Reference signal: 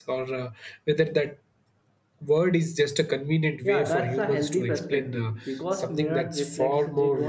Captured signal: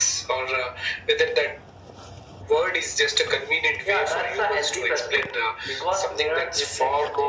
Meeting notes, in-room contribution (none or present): none